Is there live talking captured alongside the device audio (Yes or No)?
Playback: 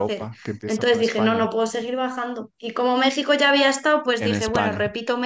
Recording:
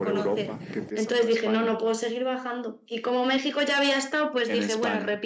No